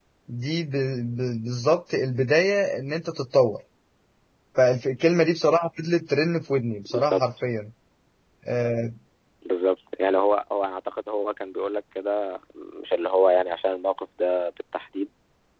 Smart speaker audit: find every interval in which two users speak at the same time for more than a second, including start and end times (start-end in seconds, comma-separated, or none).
none